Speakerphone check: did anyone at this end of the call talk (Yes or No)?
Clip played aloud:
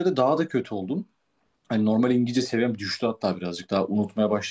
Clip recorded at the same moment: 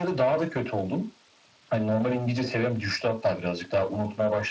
No